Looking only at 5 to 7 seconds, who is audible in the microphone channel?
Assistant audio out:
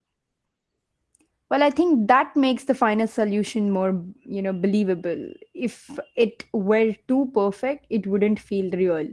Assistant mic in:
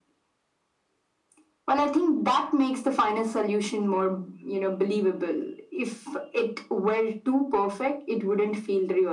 echo only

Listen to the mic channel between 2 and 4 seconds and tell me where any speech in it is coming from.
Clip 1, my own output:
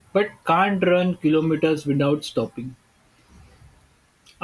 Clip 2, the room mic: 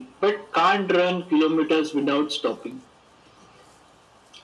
echo only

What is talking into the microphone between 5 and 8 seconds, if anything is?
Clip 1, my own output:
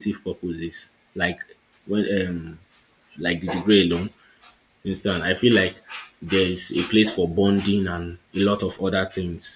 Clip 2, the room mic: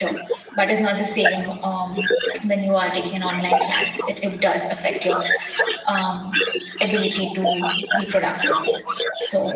both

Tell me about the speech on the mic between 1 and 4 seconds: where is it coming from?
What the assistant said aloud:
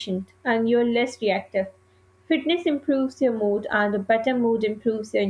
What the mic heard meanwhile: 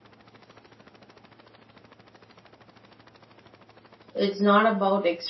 neither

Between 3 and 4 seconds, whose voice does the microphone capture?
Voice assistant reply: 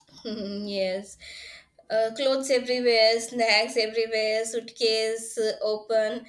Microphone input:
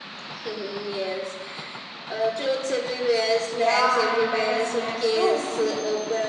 both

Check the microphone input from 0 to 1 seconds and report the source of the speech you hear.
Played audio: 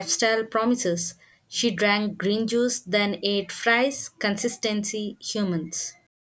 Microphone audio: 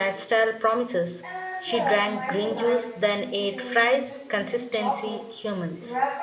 echo only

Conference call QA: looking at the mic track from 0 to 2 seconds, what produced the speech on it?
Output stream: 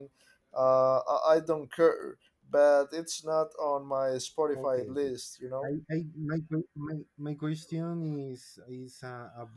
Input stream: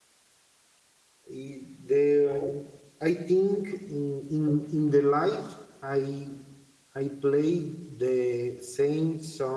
user only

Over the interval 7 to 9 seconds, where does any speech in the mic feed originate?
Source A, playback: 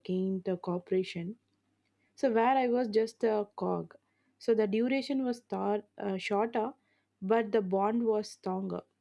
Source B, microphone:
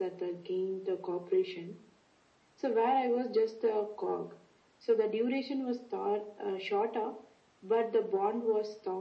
echo only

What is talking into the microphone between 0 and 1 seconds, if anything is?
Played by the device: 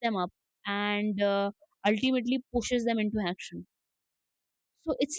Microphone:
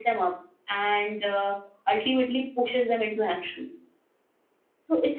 echo only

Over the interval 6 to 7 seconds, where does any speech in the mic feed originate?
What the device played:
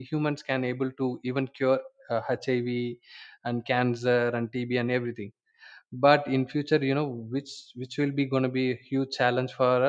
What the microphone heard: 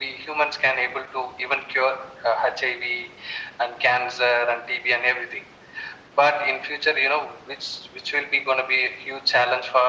echo only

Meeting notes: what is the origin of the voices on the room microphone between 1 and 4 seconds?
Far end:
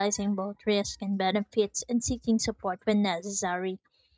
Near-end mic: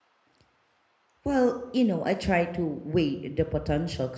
user only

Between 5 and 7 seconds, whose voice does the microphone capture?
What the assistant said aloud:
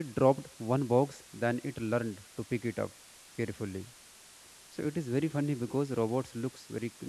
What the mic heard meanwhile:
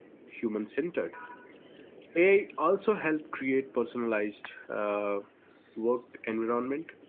user only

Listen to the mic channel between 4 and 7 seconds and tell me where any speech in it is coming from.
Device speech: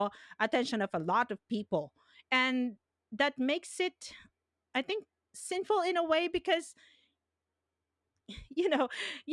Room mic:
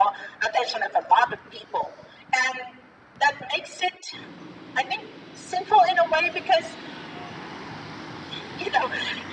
echo only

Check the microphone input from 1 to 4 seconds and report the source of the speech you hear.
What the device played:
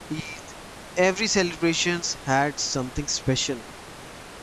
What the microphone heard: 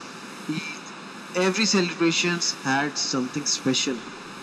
echo only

